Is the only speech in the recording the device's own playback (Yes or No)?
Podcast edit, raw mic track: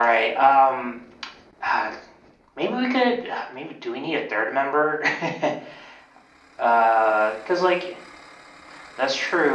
Yes